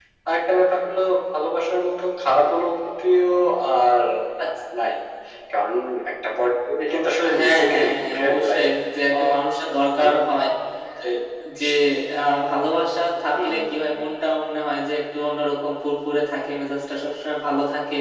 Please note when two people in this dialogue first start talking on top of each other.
7.3 s

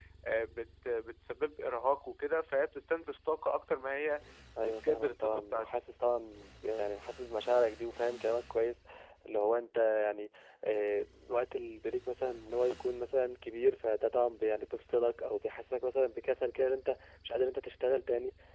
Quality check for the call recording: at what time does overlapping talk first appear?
4.6 s

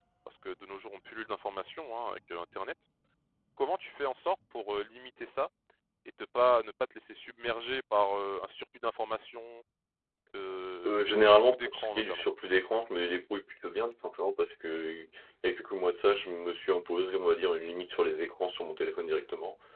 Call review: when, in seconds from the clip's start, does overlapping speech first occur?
10.9 s

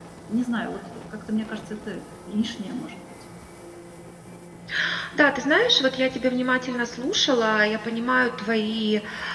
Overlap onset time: none

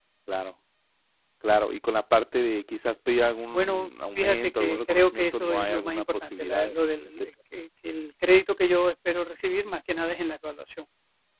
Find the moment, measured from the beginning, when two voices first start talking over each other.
3.5 s

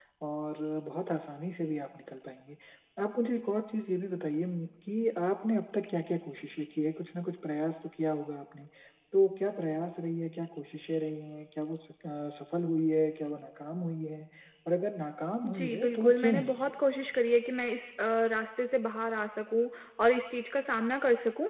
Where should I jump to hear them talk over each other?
15.4 s

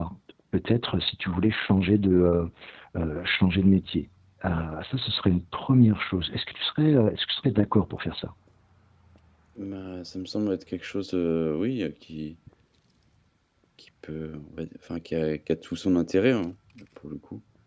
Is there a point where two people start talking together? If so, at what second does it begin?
none

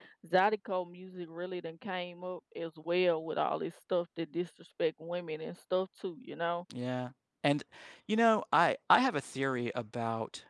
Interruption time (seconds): none

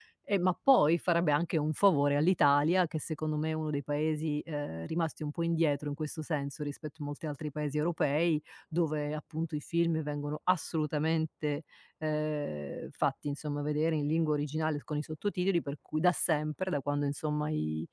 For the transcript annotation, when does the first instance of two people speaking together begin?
none

